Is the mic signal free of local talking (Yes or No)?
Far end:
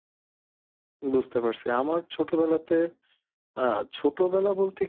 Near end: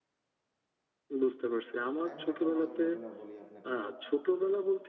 No